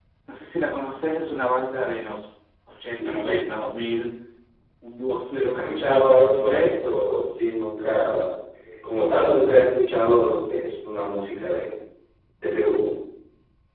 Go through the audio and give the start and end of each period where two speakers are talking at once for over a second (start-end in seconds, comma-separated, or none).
5.4-6.8